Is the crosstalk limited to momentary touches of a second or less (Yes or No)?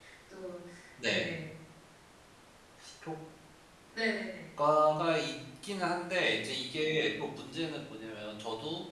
Yes